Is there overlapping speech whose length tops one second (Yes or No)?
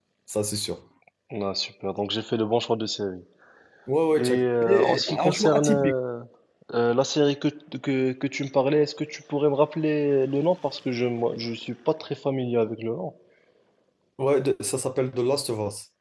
Yes